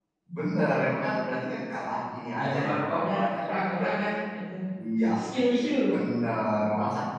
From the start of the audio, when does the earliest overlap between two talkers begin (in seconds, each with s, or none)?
2.3 s